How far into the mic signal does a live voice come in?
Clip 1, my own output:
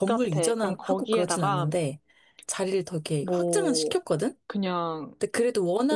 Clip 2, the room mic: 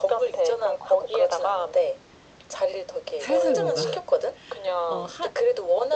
3.2 s

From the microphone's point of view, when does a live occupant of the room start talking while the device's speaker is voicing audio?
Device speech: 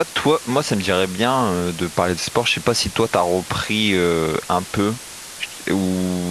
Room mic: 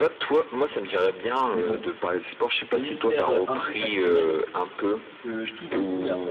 1.5 s

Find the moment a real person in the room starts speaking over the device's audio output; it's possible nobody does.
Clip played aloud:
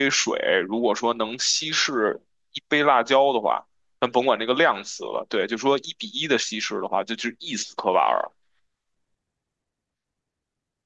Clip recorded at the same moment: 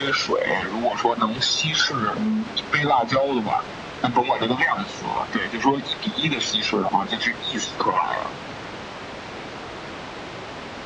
2.1 s

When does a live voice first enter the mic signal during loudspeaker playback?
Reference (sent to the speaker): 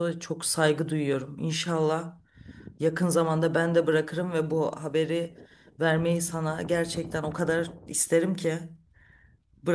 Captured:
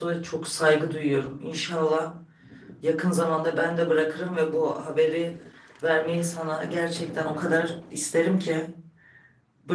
none

